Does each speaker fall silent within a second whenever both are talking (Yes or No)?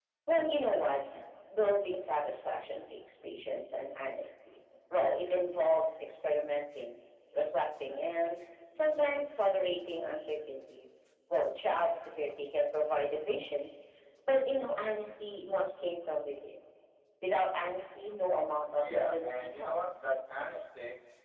No